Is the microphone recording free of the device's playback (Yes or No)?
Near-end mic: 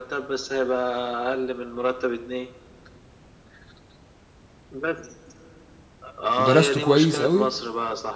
No